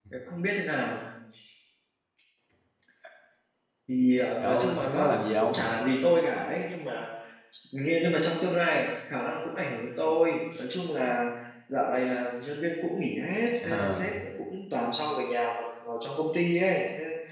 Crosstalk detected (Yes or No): Yes